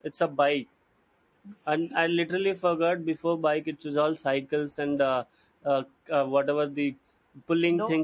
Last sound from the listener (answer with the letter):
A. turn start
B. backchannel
B